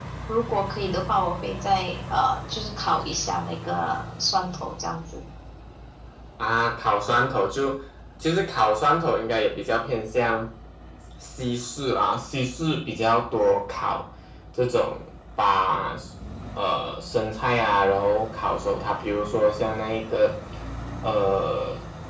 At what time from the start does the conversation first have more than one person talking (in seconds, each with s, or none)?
none